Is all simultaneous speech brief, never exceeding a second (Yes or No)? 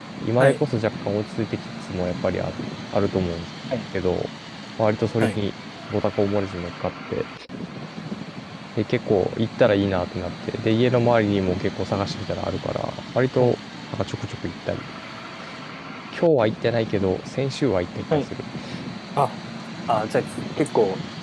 Yes